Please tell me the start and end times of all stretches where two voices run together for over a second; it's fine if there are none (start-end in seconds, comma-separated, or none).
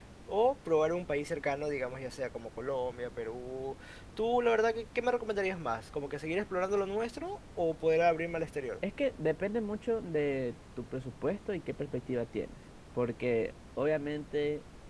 none